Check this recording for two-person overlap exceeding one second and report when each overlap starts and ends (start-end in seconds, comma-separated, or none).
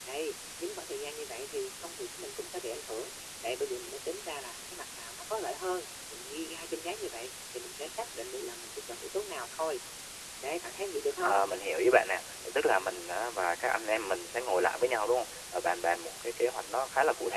none